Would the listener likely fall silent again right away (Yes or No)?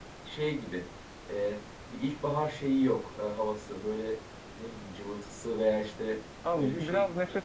No